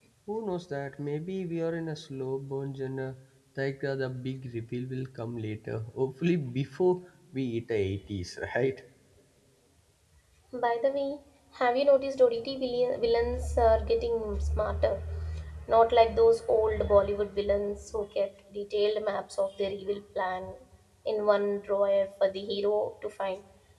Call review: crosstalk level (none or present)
none